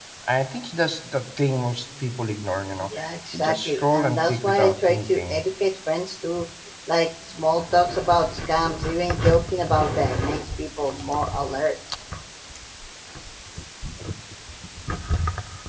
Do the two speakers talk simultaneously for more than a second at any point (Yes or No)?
Yes